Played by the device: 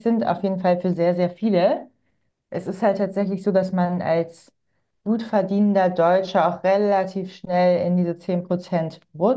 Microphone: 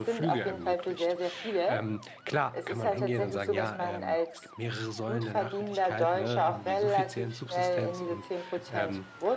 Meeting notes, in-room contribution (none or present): present